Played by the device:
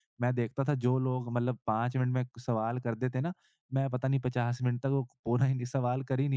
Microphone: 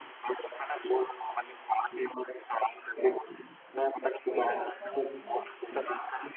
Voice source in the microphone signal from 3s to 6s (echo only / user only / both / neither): both